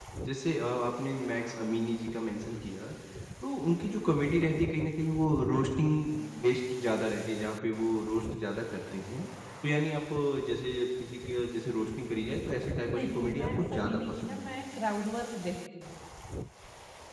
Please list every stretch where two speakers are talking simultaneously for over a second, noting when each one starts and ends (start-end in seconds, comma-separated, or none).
12.9-14.6